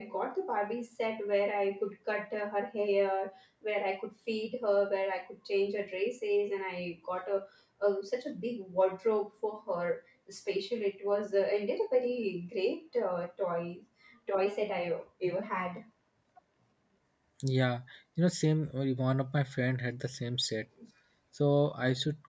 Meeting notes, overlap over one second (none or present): none